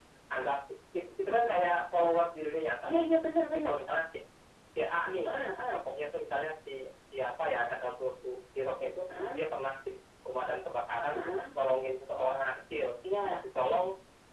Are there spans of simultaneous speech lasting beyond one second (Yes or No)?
No